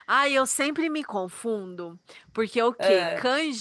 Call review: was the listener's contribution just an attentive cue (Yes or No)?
Yes